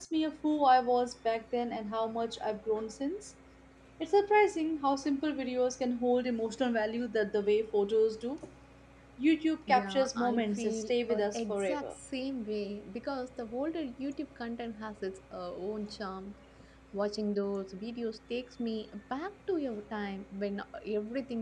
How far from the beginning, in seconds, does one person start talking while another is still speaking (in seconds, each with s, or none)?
9.7 s